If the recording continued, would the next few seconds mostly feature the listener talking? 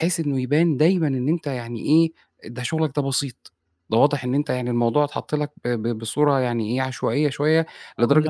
No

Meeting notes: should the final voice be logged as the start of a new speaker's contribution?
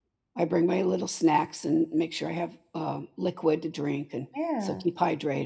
No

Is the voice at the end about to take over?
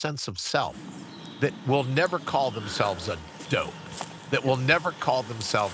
No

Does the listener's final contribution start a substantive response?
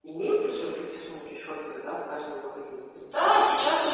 Yes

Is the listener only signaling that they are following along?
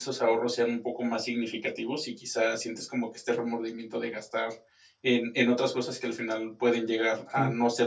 Yes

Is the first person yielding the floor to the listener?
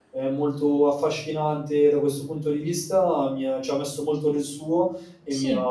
No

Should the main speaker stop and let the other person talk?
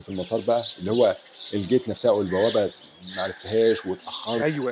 Yes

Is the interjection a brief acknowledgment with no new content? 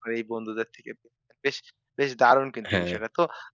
Yes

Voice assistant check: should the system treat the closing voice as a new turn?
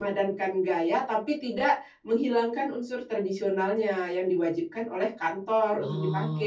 Yes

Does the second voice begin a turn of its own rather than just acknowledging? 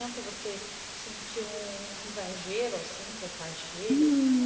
Yes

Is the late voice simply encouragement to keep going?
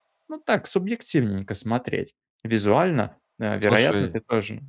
Yes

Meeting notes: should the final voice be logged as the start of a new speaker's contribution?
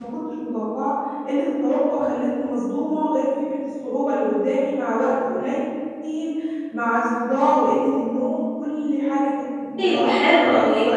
Yes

